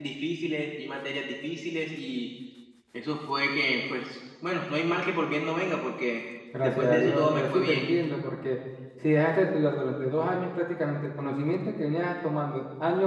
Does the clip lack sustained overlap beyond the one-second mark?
No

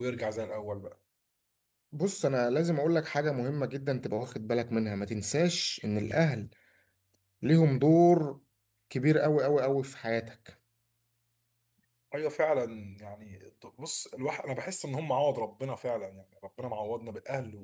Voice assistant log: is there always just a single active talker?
Yes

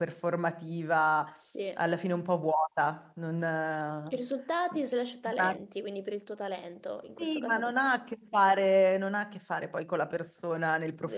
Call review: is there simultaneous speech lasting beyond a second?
No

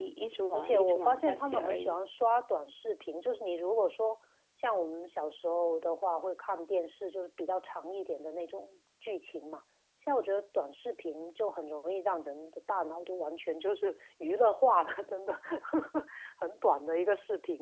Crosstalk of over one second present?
Yes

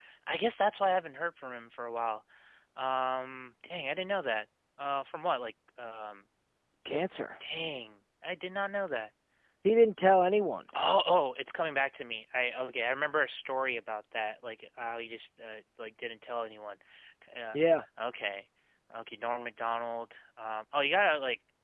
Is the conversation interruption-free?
Yes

